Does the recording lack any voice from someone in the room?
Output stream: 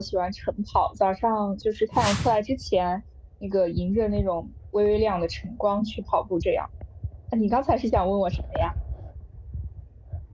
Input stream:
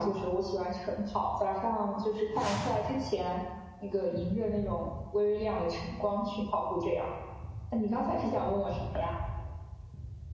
Yes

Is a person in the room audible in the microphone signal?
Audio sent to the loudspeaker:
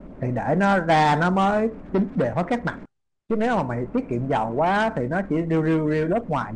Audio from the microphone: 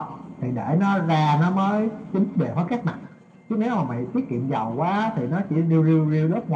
No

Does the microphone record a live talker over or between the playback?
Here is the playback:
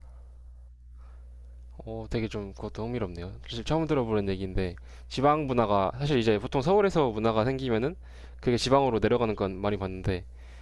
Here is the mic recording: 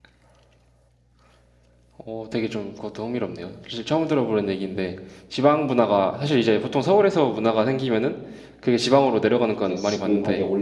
Yes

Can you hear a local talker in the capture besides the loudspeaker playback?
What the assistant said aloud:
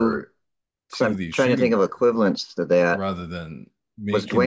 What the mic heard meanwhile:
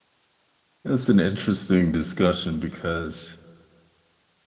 Yes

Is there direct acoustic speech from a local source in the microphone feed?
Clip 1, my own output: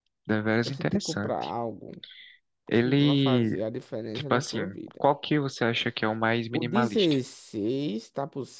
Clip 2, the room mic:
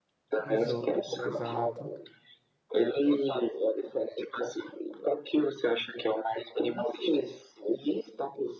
Yes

